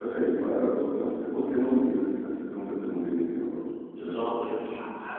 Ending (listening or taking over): taking over